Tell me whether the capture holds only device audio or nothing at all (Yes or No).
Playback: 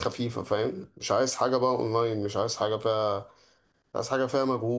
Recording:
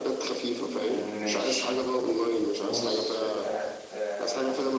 No